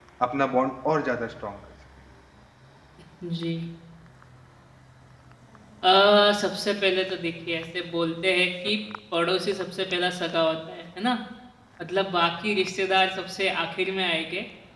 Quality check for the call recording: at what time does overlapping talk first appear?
none

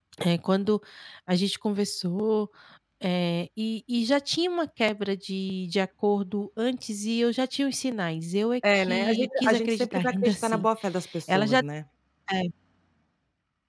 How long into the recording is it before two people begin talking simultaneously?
8.6 s

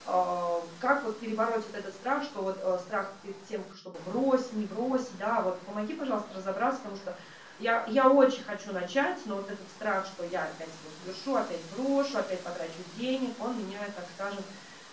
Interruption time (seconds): none

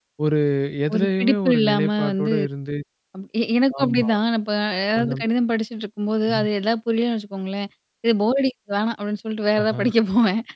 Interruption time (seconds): 0.9 s

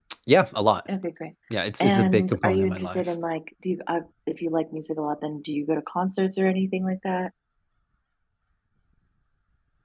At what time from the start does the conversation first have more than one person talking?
1.8 s

